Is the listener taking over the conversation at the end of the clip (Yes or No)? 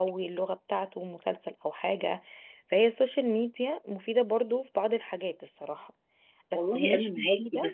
Yes